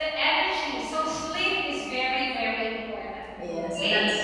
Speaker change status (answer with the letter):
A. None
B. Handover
B